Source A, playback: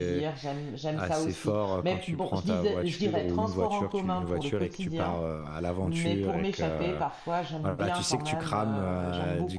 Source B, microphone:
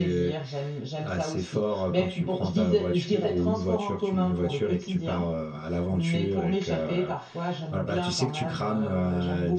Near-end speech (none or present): none